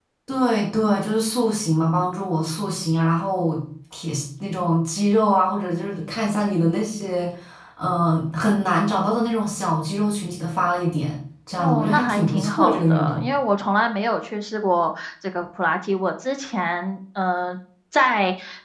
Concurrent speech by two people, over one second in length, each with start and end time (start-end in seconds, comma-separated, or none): 11.6-13.3